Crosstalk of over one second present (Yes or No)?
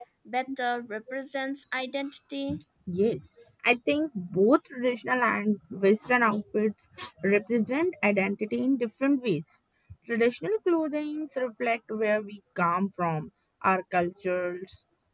No